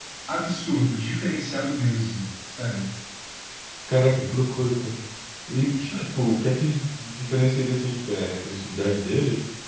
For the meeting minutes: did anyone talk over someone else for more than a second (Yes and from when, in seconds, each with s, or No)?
No